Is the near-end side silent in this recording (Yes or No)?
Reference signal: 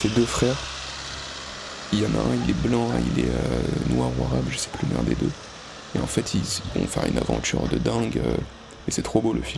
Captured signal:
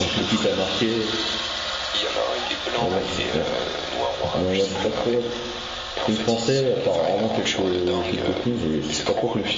No